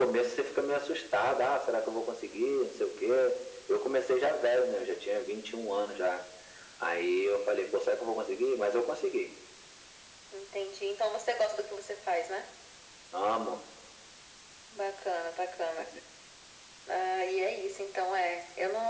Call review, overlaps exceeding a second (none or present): none